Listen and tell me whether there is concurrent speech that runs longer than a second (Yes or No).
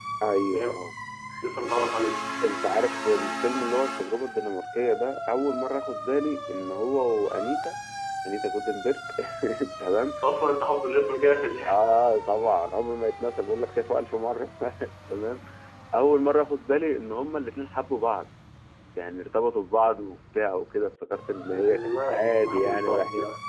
Yes